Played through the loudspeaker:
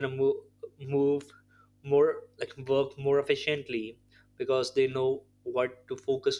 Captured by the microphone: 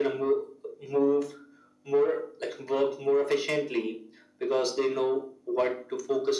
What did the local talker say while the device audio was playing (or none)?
none